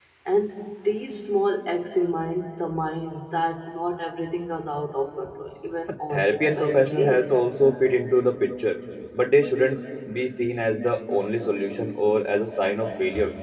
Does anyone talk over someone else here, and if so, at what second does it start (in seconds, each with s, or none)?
6.1 s